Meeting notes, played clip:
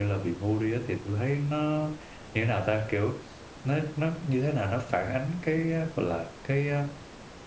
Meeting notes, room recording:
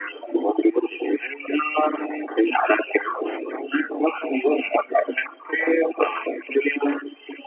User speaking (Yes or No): No